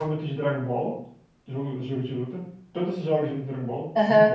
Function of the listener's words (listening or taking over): taking over